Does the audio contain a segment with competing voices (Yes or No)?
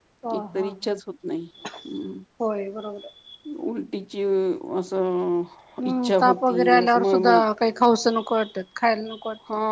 Yes